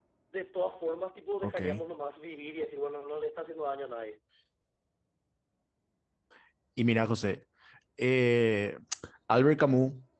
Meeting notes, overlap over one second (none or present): none